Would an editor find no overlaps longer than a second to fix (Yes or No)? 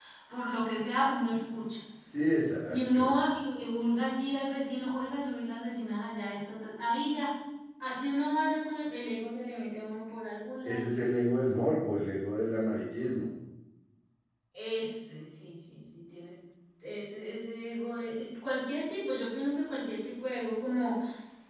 Yes